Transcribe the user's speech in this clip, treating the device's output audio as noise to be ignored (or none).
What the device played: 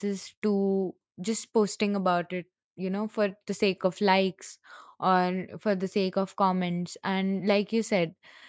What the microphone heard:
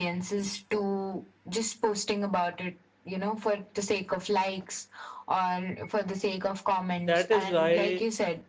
that is why